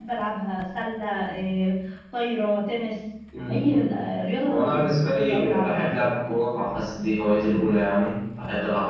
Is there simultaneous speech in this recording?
Yes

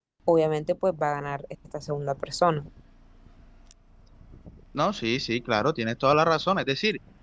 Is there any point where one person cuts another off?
No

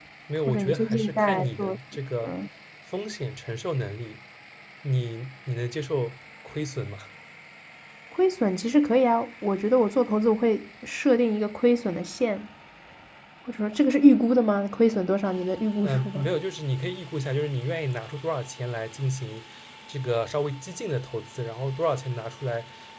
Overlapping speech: Yes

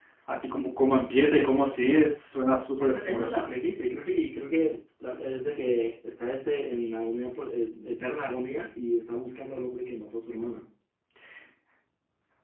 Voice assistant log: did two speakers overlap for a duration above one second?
No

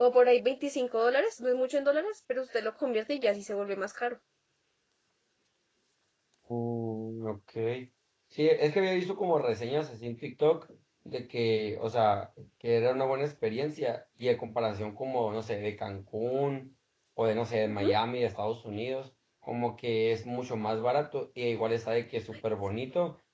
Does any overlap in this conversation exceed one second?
No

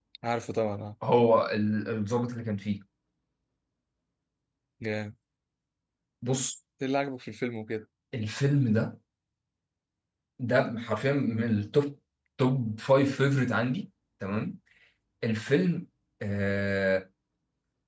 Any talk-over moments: No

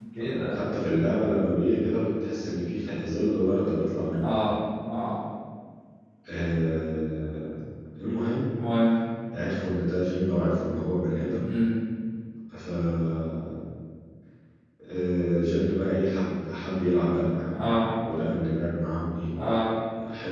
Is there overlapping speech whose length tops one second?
No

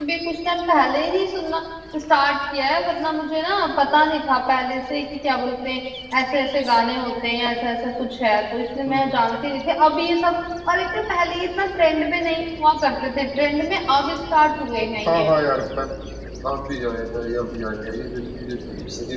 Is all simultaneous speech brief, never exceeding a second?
Yes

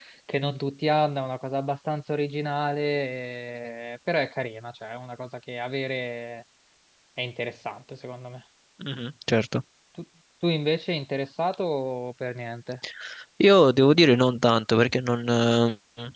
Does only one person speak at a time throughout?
Yes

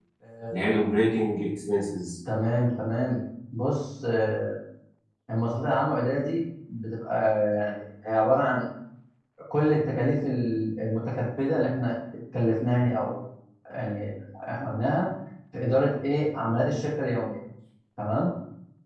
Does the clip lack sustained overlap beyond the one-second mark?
Yes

